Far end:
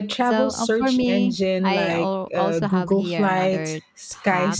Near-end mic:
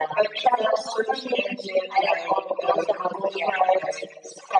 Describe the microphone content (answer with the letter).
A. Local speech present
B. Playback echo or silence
B